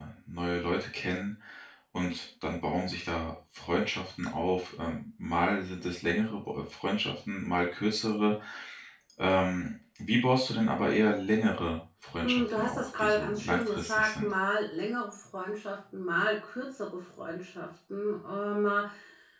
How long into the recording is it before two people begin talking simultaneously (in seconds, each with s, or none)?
12.2 s